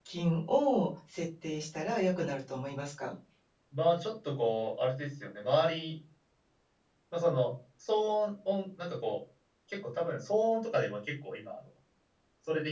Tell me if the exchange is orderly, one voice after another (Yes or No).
Yes